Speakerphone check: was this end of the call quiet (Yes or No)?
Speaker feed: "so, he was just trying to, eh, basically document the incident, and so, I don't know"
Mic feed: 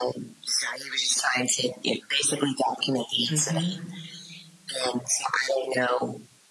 No